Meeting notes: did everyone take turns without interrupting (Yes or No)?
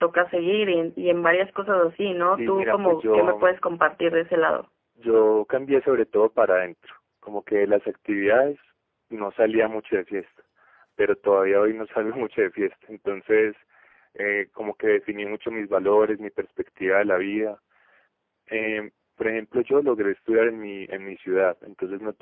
No